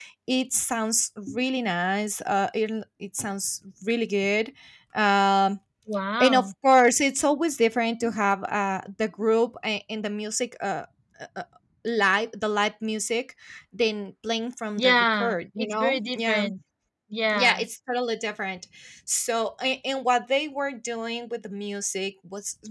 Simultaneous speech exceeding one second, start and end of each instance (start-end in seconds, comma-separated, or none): 14.8-16.4